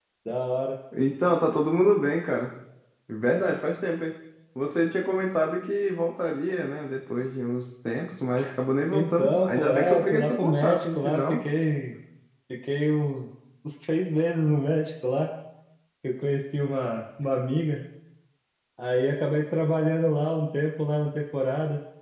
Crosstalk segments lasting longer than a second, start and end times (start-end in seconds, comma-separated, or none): 8.9-11.4